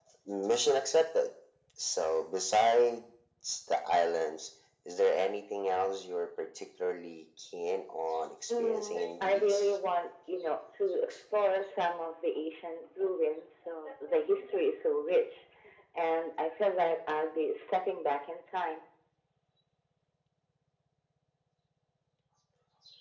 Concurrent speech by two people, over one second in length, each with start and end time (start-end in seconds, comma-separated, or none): 8.5-9.8